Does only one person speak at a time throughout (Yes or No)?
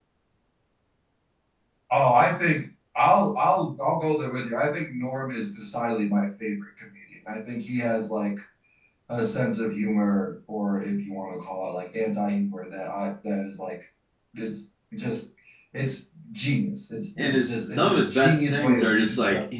No